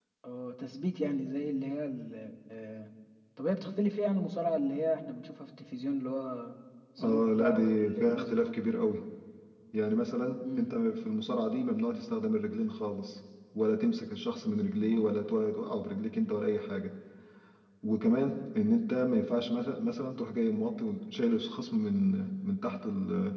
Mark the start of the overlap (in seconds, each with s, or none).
7.0 s